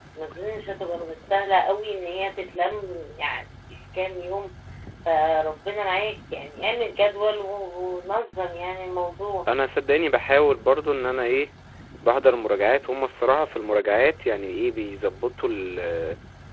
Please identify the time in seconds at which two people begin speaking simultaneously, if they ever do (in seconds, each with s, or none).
none